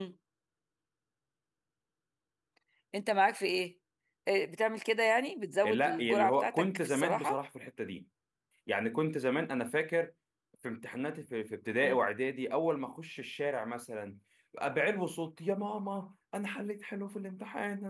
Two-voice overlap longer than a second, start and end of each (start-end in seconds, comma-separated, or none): 5.6-7.4